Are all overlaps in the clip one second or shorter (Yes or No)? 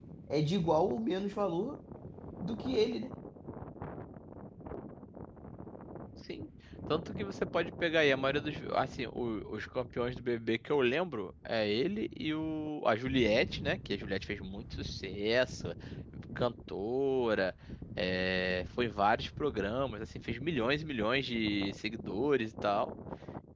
Yes